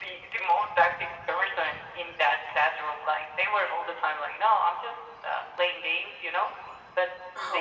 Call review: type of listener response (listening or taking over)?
listening